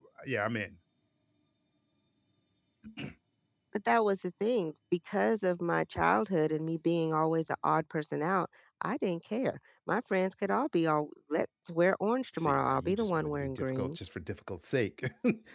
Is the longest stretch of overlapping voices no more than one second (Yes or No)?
No